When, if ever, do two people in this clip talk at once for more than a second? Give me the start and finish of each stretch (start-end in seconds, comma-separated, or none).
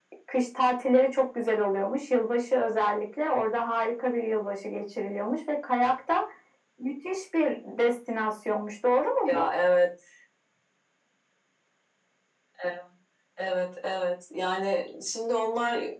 none